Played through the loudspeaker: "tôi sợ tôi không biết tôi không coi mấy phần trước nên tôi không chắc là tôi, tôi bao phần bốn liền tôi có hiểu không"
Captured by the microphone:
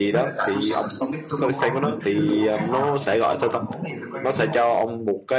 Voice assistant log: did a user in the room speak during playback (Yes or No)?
Yes